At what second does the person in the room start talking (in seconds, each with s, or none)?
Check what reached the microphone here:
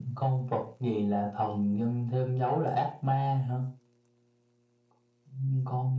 none